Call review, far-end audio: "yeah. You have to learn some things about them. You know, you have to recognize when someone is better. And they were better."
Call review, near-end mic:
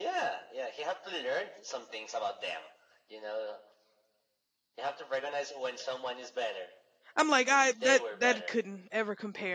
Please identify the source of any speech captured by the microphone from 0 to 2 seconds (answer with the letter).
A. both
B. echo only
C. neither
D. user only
B